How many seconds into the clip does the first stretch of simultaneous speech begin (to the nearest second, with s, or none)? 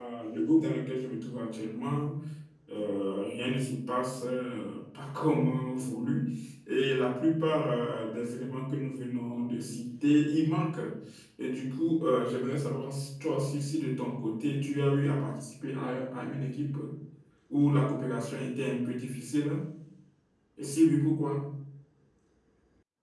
none